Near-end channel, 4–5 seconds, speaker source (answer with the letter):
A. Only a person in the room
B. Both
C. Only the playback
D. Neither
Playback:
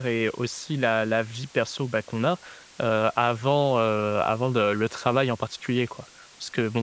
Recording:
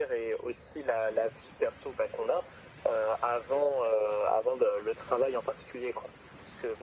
C